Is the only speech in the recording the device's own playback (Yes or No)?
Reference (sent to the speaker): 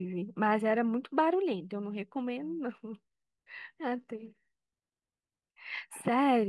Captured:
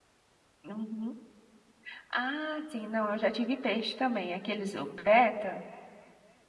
No